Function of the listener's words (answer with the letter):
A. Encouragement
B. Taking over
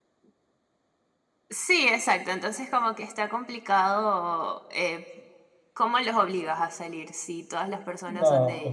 B